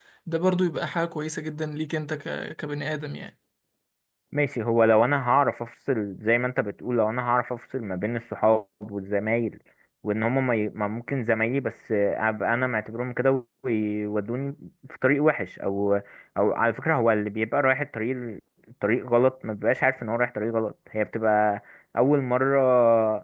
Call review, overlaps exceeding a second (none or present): none